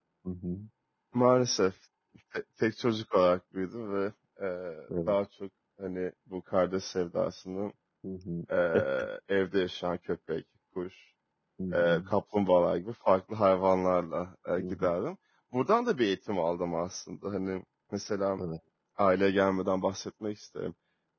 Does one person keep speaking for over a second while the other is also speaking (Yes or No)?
No